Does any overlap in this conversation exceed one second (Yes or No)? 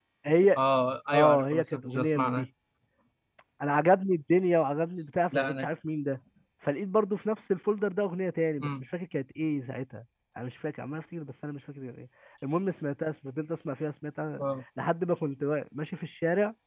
Yes